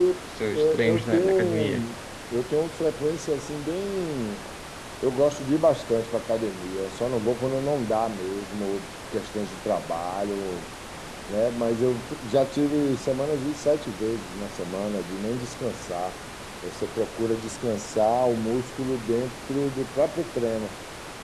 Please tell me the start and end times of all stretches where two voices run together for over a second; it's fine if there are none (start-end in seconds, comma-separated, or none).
0.5-1.8